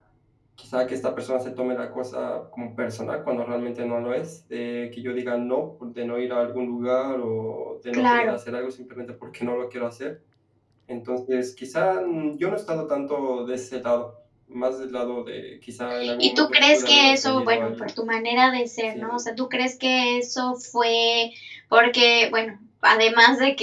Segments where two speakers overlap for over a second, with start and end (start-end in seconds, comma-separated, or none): 16.2-17.8